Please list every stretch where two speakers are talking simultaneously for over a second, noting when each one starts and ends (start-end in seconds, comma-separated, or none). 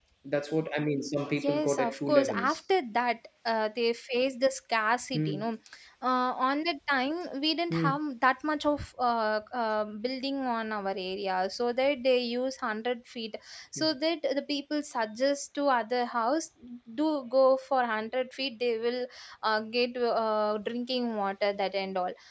1.4-2.6